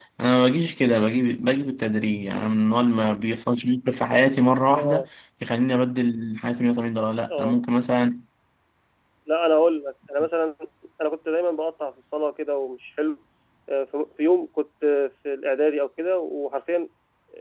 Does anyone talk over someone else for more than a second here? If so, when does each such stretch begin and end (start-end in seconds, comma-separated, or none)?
none